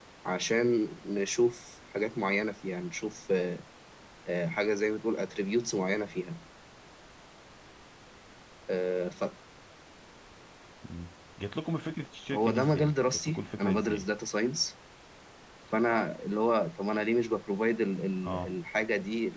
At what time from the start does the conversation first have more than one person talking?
12.6 s

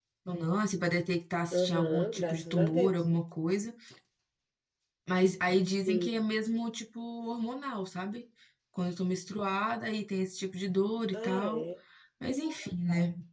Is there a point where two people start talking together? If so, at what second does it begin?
1.5 s

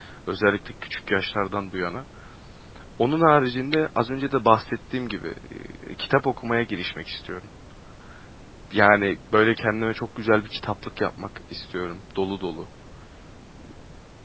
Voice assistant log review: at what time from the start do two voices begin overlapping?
none

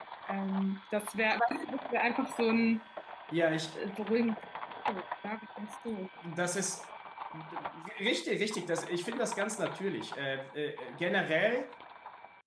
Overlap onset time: none

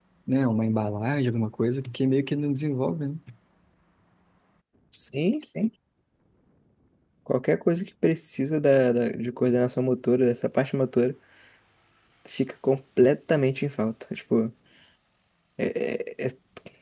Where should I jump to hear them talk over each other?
none

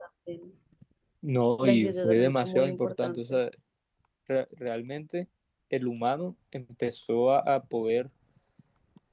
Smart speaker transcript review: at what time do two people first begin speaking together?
1.6 s

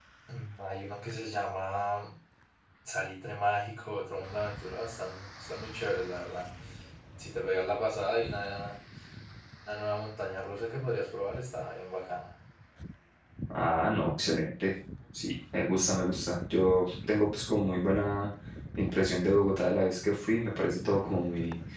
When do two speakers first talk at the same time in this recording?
none

